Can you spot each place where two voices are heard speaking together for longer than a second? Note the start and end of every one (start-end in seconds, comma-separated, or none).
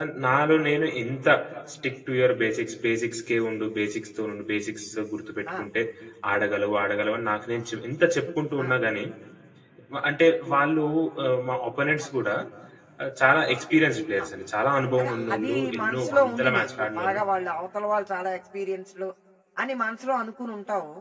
15.0-17.2